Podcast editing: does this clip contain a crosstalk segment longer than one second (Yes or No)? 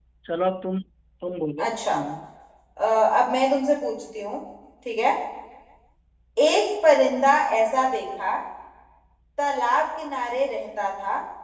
No